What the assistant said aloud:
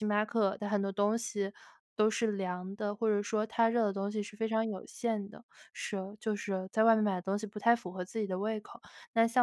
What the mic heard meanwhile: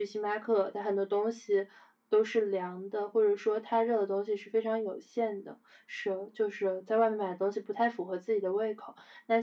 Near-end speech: none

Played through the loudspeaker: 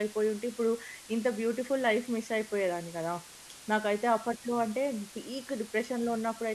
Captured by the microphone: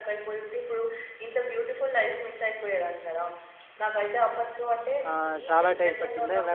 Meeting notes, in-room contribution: present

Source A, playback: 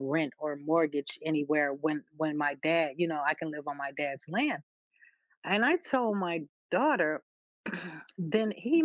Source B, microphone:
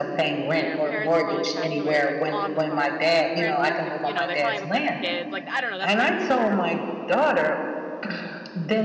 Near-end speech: present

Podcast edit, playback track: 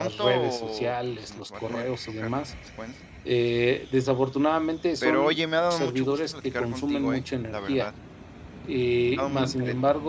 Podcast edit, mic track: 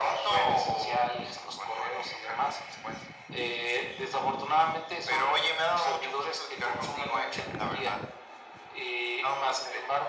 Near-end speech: none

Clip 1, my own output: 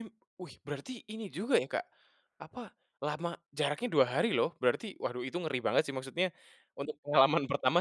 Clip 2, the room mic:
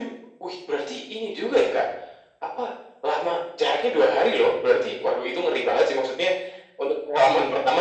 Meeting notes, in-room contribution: none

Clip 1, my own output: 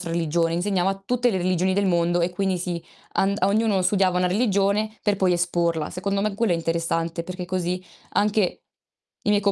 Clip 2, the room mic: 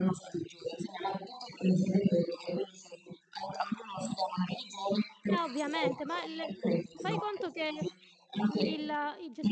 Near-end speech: present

